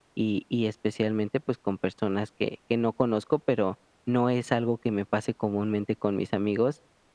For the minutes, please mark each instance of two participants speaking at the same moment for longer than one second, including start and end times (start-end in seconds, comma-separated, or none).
none